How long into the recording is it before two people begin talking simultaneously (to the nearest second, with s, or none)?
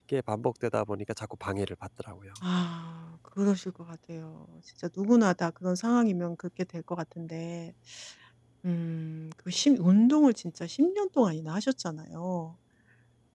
none